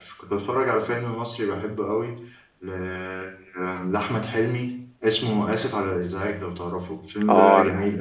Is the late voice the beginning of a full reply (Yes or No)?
Yes